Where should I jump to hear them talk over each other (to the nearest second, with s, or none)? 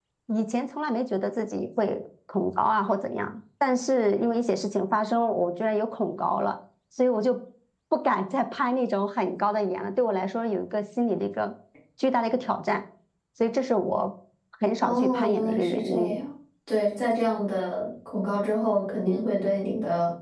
15 s